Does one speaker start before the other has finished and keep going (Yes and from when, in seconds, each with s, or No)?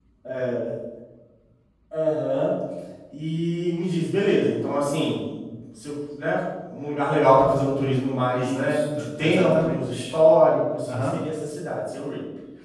Yes, from 8.4 s